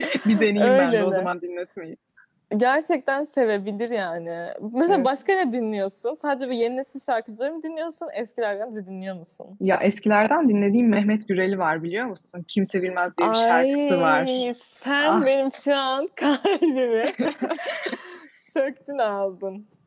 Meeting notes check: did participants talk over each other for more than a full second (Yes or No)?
Yes